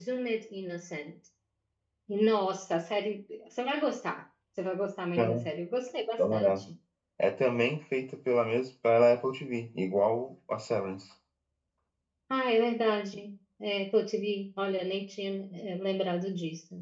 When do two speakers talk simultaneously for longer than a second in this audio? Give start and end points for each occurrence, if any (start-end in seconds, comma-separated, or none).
none